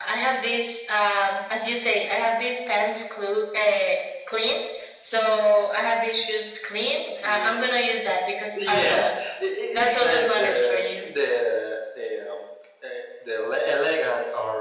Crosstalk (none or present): present